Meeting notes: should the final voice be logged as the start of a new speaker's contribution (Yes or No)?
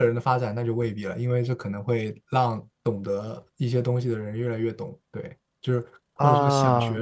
No